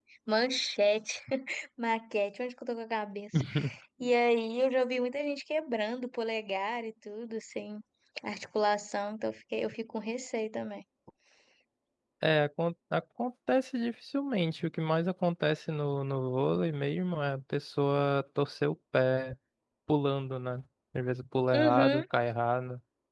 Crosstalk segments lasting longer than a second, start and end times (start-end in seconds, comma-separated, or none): none